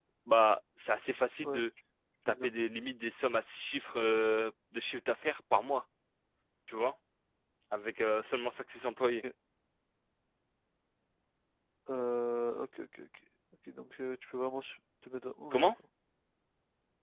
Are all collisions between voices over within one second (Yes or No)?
Yes